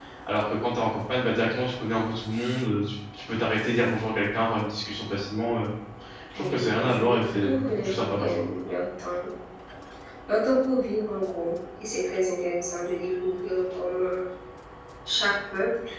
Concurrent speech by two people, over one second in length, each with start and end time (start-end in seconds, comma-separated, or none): 6.3-8.4